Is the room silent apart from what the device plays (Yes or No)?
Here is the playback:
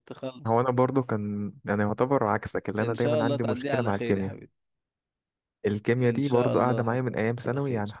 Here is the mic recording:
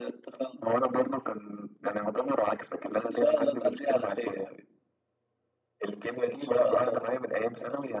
Yes